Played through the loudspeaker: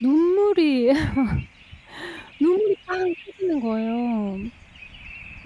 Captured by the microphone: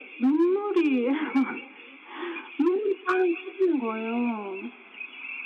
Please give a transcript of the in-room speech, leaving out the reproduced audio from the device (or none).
none